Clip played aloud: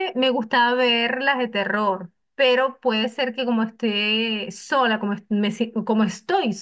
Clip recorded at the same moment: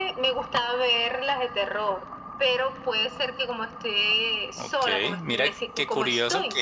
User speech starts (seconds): 5 s

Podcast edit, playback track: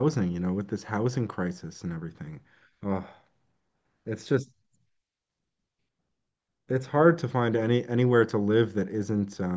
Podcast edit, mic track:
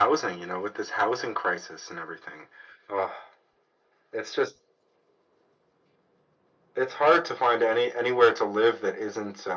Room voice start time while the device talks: none

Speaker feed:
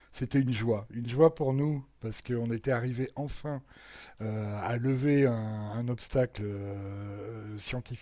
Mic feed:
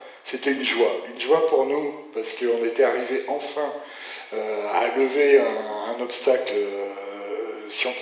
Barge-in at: none

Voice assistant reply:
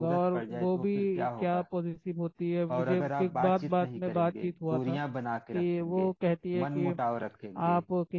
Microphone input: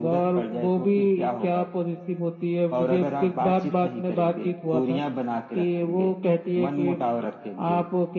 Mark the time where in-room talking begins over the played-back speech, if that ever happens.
none

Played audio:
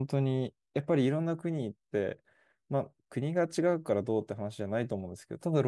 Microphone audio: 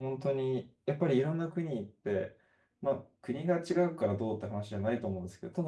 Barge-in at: none

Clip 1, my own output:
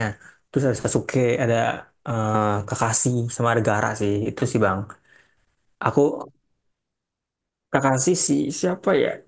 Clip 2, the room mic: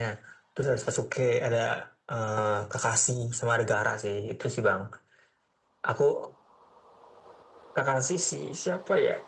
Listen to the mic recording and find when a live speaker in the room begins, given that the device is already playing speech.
none

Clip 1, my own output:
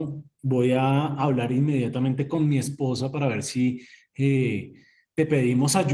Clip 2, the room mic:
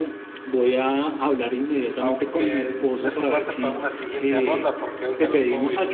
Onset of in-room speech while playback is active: 2 s

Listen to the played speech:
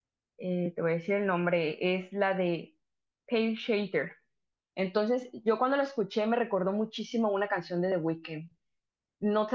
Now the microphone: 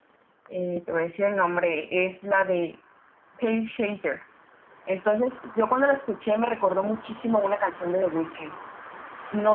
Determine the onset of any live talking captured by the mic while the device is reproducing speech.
none

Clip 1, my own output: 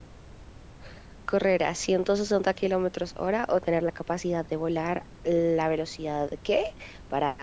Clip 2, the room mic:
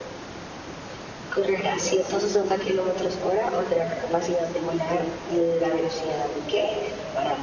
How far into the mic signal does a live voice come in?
none

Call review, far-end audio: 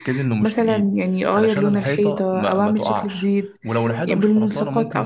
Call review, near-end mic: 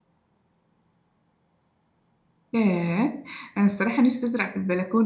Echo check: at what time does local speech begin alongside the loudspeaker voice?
3 s

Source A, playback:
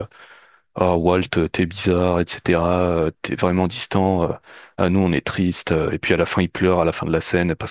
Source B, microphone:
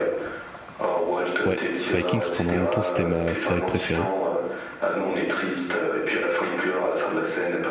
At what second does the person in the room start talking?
1 s

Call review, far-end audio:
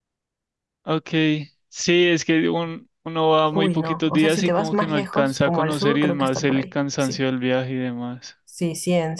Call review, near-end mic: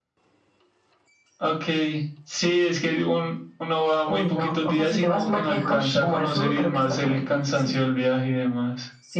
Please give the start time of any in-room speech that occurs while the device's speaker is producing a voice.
6 s

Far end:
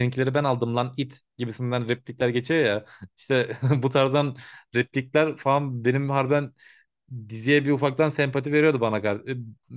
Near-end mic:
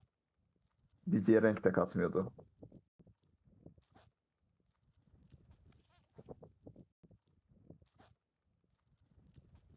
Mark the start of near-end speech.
1 s

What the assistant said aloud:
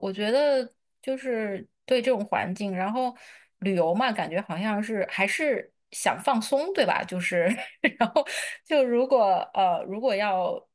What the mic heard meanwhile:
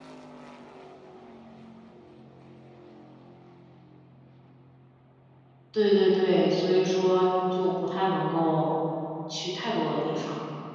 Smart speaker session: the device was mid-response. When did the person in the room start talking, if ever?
6 s

